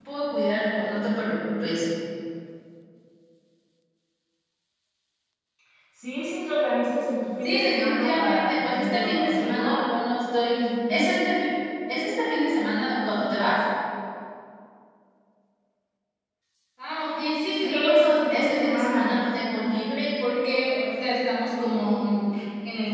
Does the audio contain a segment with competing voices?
Yes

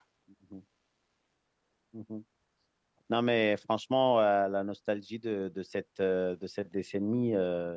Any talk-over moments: No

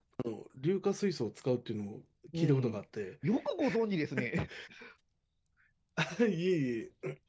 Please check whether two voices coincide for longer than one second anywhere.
No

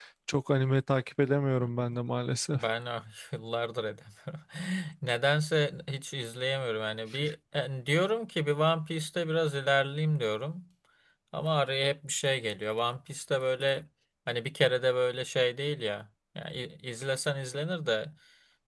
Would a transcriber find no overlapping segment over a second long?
Yes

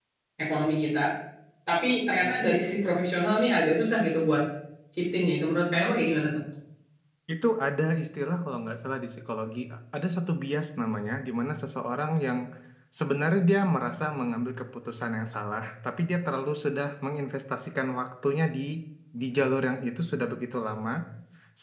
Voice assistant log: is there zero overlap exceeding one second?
Yes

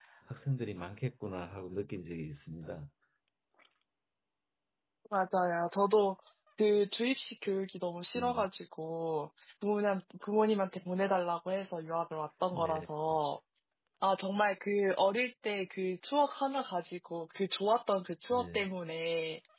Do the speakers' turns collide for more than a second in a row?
No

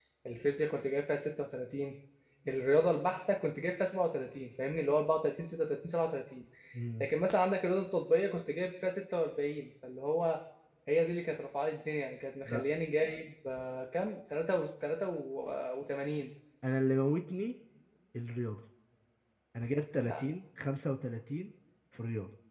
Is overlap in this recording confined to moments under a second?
Yes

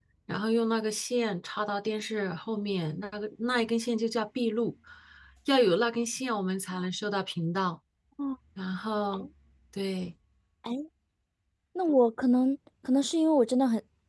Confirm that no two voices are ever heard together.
Yes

